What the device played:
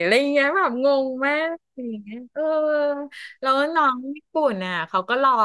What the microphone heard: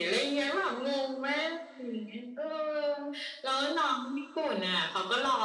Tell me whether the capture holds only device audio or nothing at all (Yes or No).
Yes